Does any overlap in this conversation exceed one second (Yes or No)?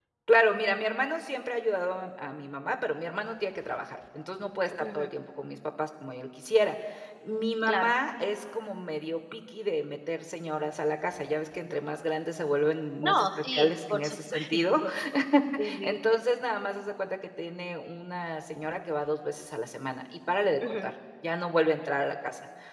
Yes